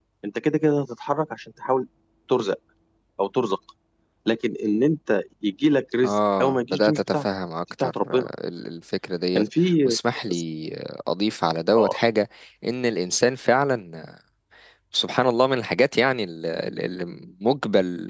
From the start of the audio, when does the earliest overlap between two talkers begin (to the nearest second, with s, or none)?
6 s